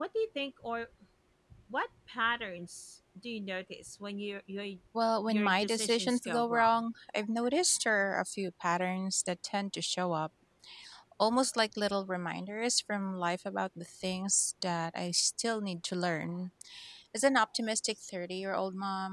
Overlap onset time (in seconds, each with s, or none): 5.3 s